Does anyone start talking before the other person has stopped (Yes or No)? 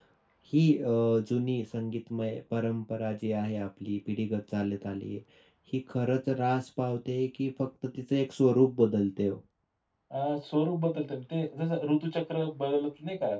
No